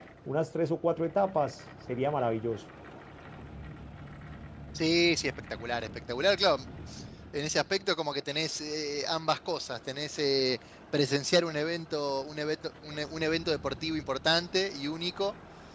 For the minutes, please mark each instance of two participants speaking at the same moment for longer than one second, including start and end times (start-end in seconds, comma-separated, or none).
none